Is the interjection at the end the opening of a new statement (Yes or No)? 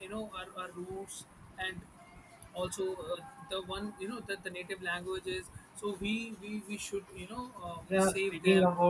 Yes